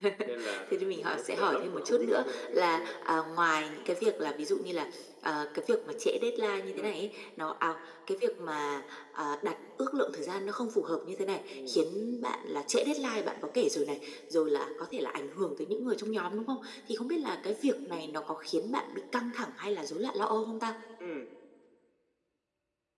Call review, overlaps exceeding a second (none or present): present